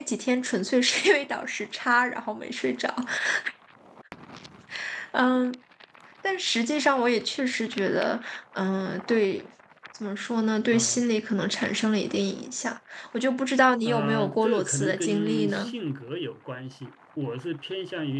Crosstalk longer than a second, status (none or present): present